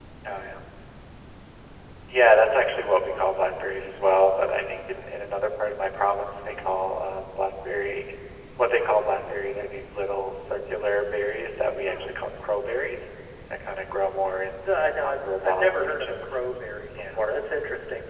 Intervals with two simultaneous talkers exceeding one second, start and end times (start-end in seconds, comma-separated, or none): 14.6-16.4